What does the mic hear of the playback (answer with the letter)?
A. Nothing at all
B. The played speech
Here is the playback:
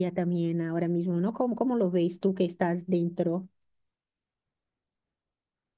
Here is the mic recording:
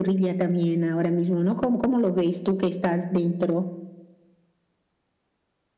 B